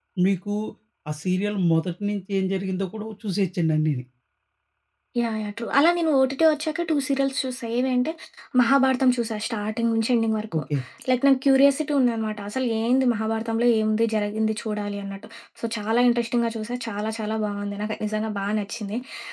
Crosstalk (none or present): none